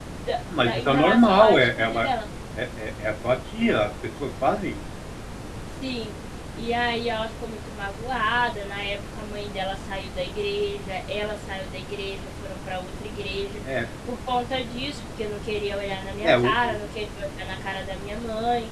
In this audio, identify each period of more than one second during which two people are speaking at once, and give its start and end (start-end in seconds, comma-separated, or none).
0.7-2.0